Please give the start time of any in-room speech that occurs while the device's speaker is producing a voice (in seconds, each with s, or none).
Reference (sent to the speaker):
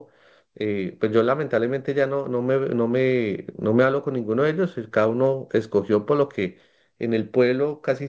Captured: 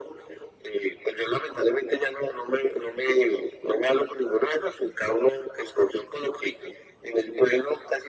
none